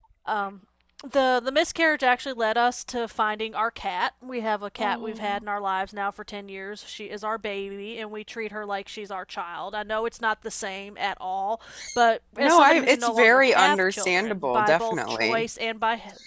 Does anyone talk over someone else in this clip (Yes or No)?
Yes